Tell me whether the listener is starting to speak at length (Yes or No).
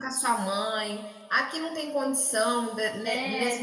No